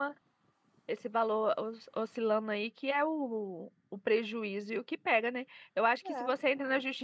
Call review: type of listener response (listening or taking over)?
listening